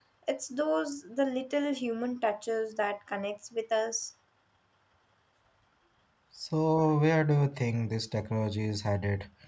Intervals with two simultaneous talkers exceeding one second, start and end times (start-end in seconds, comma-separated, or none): none